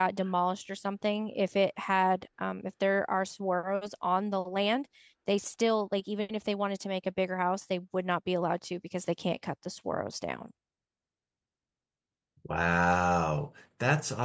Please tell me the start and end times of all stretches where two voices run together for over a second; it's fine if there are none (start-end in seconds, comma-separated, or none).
none